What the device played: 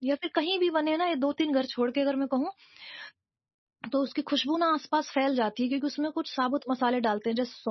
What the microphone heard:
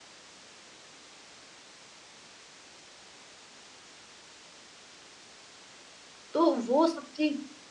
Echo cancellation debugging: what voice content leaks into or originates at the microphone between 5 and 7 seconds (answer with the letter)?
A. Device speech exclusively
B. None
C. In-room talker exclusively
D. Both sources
C